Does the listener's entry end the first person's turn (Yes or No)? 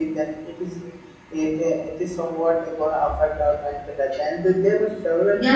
Yes